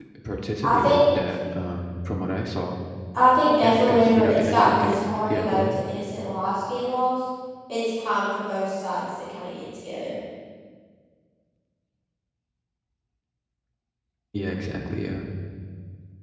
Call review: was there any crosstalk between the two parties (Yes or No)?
Yes